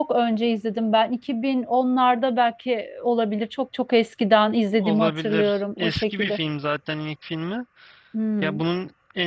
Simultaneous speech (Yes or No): Yes